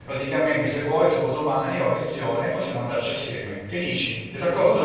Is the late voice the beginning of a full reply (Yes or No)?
Yes